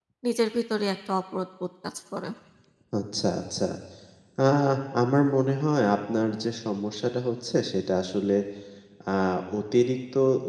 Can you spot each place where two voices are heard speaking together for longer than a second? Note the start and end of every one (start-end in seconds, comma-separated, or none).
none